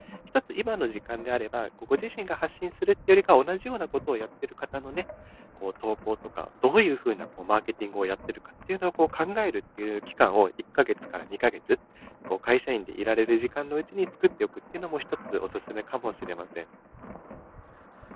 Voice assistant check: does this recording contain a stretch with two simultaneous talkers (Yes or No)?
No